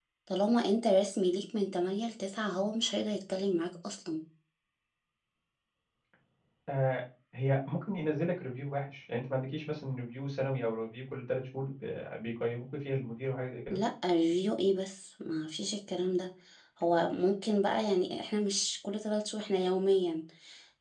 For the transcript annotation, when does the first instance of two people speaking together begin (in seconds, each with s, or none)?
none